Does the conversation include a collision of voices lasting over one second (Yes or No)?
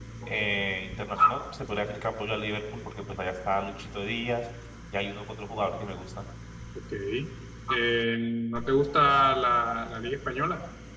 No